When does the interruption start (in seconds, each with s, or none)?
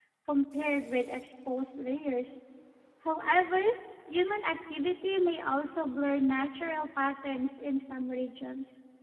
none